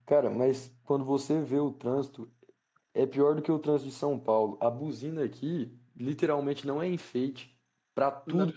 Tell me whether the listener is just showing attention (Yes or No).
Yes